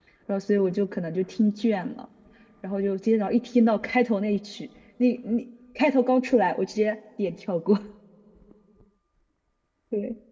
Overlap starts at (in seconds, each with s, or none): none